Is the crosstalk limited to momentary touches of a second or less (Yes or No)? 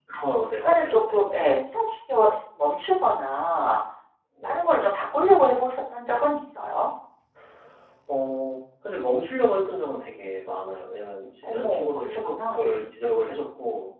No